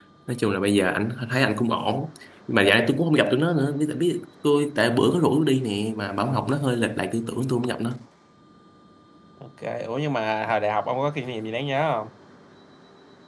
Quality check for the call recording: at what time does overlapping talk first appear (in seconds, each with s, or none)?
none